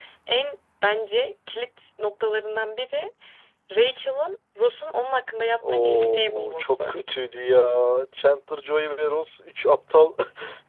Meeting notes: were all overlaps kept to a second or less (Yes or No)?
No